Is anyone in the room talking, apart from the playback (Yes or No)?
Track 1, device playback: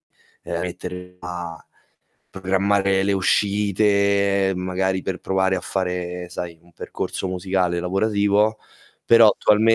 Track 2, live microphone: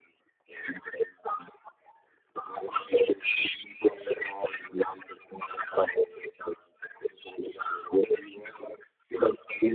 No